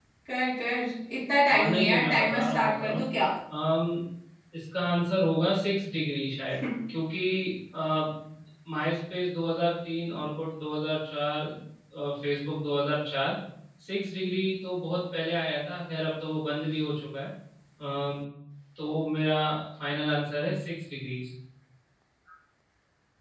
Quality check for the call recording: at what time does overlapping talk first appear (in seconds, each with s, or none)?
1.5 s